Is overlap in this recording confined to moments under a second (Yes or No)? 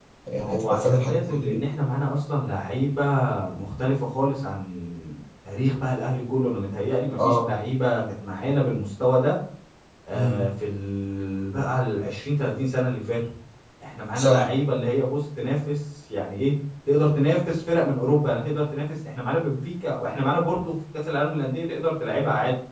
No